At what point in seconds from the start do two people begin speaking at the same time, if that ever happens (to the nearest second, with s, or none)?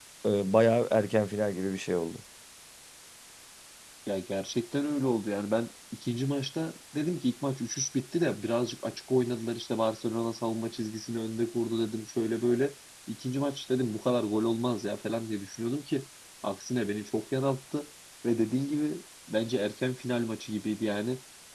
none